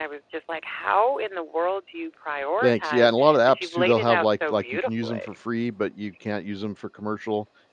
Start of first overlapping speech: 2.6 s

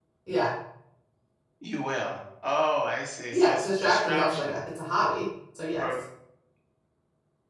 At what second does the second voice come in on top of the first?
3.3 s

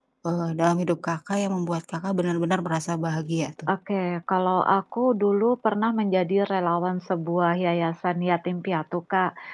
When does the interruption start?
none

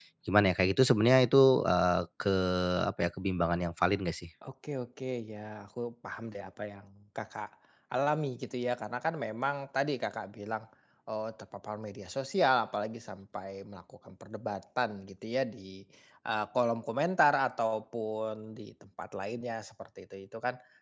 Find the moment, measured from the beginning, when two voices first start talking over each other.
none

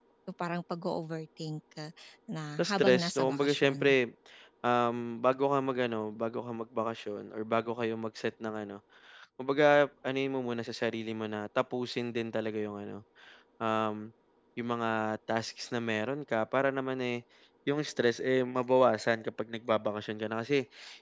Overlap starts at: 2.6 s

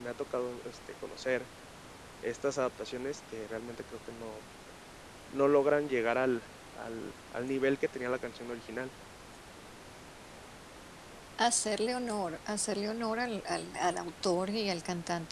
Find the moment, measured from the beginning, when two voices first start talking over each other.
none

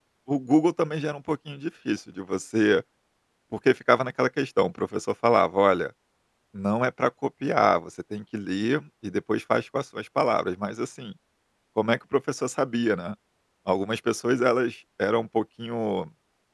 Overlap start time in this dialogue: none

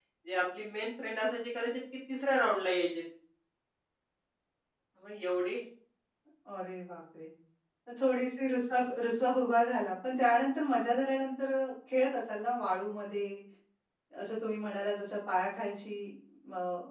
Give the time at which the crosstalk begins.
none

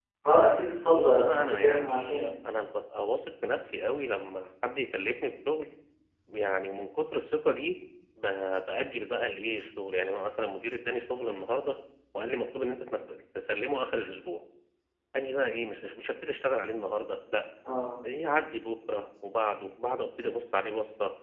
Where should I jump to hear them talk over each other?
0.9 s

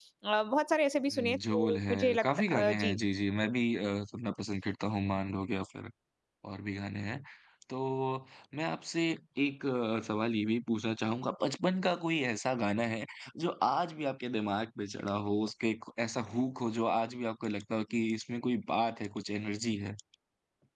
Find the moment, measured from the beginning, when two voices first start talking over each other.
1.1 s

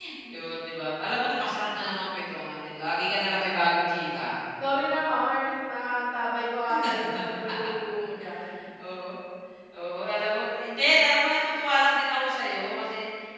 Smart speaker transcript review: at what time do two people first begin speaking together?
none

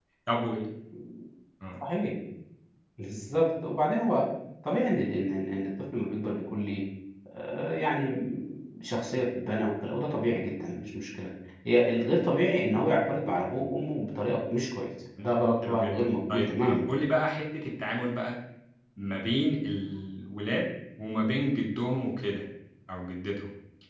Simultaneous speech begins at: 15.2 s

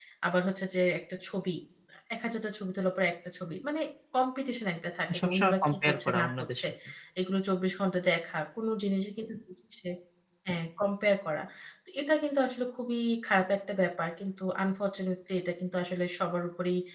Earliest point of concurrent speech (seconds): 5.1 s

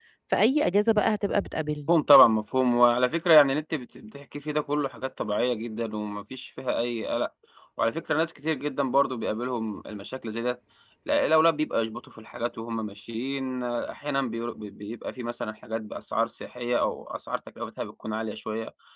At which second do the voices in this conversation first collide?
none

